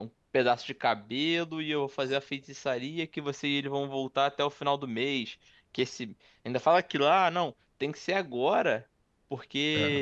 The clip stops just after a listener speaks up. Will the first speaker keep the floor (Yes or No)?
Yes